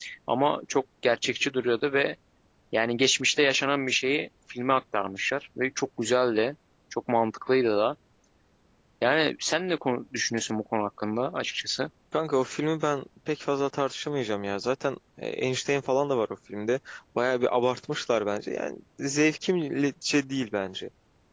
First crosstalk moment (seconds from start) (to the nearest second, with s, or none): none